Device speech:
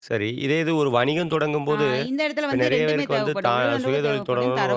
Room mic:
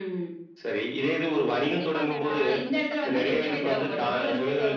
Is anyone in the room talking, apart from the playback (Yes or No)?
Yes